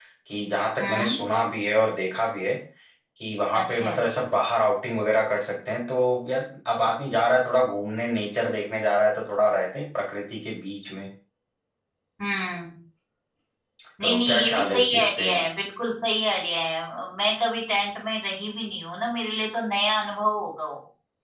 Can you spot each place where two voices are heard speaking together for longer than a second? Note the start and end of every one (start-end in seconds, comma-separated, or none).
14.0-15.2